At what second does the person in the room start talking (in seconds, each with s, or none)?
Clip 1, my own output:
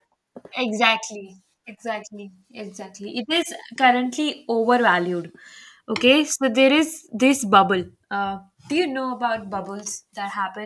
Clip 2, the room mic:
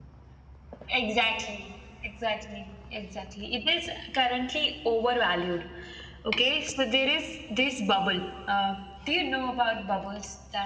none